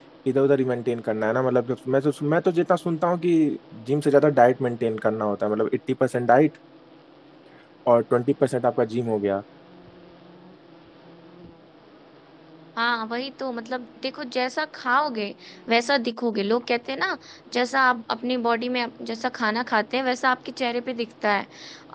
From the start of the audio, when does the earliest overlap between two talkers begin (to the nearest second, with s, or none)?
none